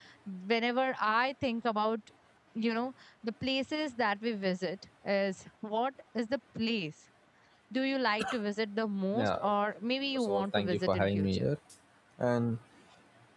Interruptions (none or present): present